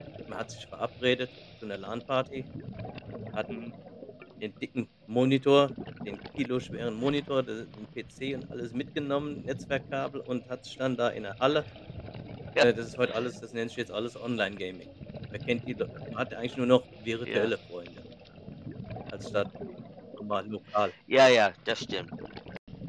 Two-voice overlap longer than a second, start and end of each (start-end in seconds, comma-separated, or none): none